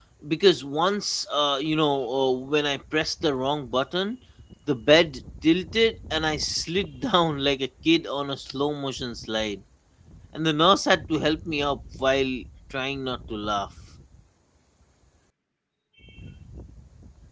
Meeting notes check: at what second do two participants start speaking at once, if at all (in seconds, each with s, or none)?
none